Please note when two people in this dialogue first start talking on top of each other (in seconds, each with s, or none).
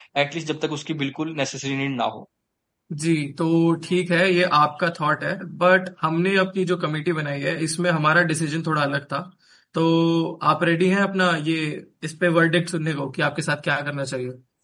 none